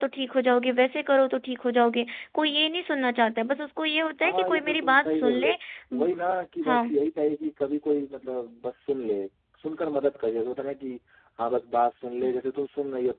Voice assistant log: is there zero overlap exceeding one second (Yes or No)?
No